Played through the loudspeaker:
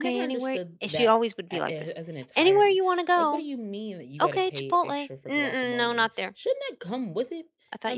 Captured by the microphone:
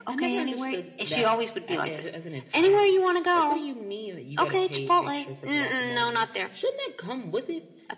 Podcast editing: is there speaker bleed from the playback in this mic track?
Yes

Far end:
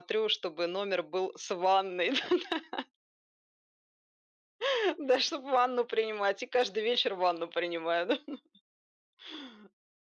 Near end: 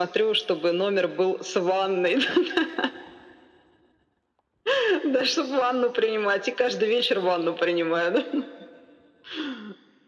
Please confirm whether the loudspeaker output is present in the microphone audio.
Yes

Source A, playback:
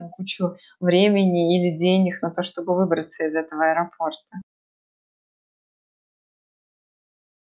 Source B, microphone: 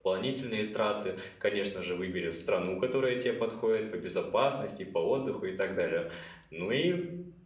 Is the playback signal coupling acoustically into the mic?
No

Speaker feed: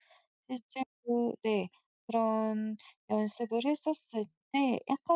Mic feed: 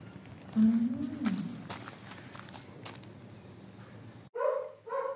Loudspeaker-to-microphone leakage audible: No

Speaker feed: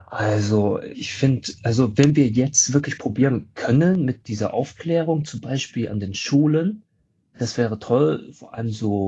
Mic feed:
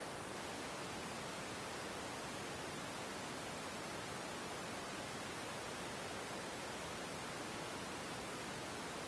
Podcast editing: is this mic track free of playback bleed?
Yes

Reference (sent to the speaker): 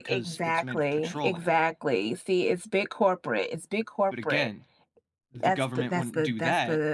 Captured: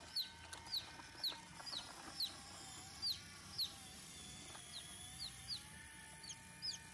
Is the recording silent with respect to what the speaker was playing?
Yes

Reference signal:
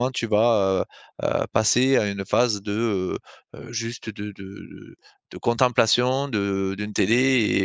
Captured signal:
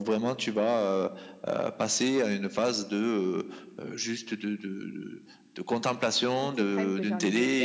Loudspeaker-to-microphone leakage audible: Yes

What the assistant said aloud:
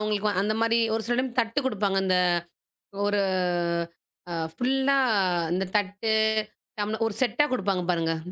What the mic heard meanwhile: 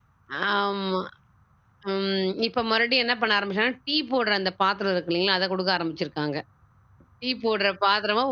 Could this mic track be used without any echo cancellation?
Yes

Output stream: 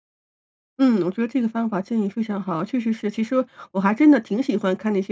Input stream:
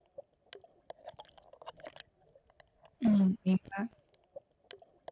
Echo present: No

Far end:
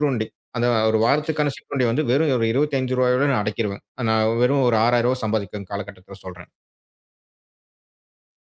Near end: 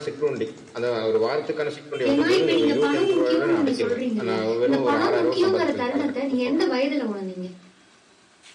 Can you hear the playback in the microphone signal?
Yes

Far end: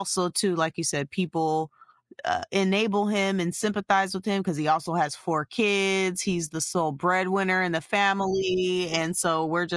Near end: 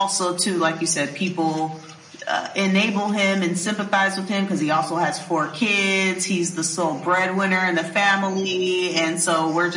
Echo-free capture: No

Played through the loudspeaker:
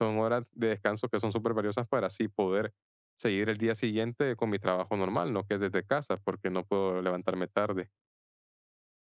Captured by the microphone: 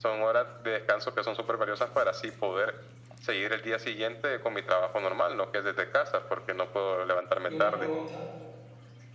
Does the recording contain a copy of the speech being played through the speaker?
Yes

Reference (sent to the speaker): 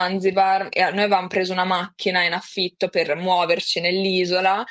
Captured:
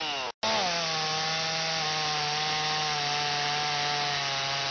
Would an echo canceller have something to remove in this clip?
No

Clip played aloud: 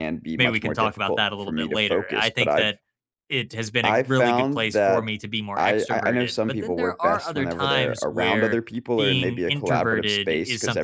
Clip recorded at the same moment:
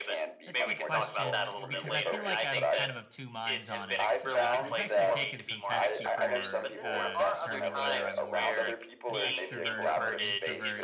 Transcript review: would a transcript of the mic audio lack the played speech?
No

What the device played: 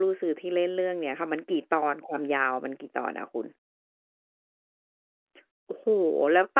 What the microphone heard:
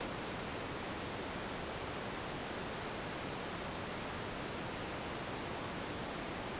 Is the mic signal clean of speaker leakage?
Yes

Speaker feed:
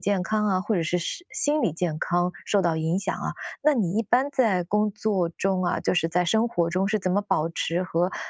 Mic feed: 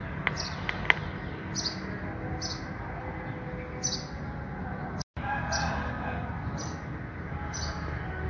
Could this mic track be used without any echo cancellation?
Yes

